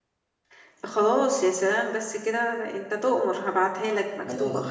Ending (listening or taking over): taking over